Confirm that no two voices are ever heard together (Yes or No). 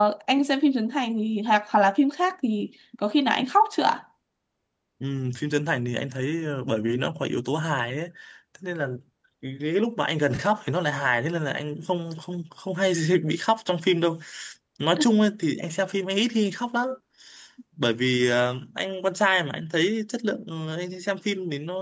Yes